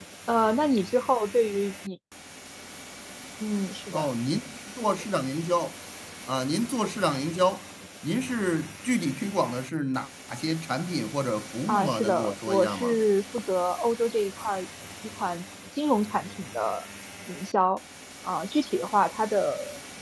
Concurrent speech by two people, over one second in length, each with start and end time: 11.7-13.0

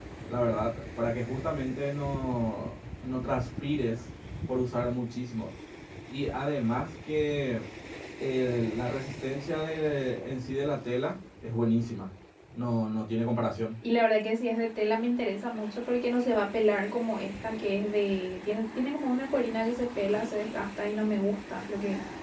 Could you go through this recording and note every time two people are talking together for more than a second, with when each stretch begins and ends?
none

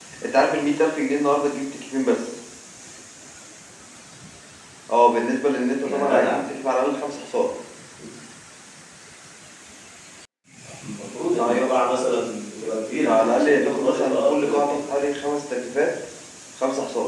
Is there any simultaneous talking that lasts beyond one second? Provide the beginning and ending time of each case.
13.1-14.8

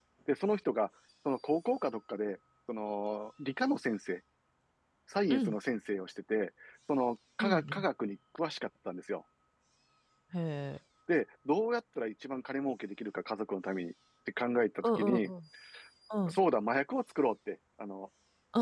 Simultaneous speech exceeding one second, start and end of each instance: none

